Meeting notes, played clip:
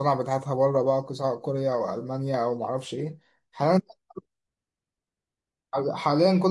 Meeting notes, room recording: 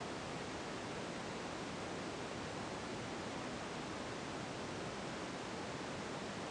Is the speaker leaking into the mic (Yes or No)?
No